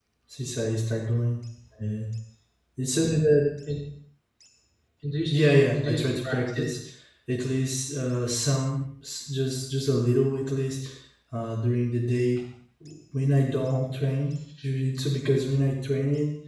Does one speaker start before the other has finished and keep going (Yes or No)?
Yes